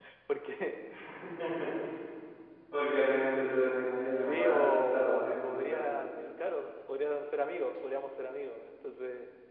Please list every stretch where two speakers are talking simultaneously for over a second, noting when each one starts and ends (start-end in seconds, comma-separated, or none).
4.1-5.8